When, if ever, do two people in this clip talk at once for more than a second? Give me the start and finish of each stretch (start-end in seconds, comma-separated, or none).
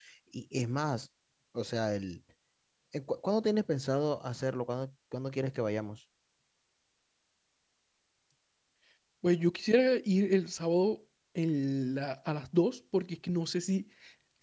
none